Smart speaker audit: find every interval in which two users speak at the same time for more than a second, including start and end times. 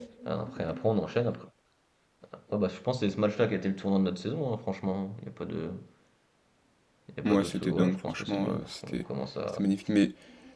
7.2-9.0

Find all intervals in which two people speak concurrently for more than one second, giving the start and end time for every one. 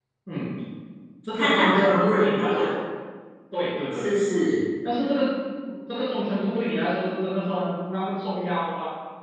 1.3-2.6

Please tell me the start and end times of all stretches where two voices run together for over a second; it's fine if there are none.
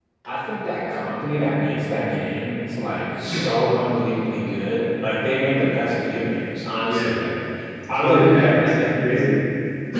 8.0-9.3

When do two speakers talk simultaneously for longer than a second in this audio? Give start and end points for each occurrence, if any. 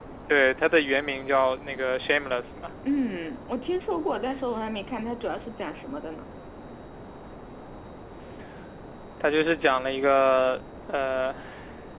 none

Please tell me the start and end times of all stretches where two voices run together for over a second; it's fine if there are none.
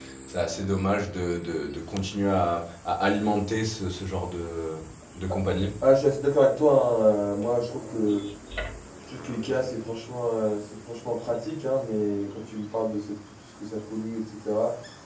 none

